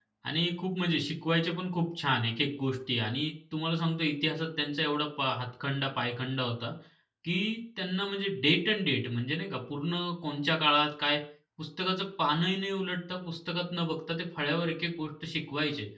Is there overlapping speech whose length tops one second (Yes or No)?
No